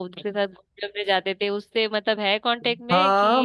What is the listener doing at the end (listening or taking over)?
taking over